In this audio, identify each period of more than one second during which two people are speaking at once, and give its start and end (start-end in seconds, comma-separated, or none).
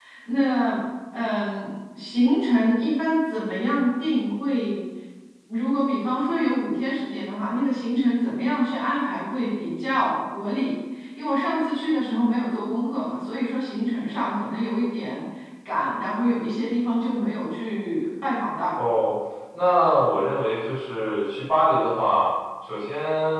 none